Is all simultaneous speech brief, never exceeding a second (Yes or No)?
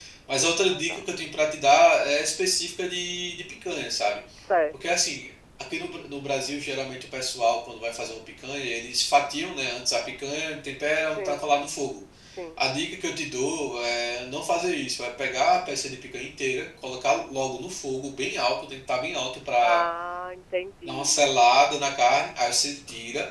Yes